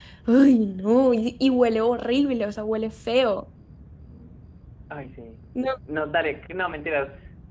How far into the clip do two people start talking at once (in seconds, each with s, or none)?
none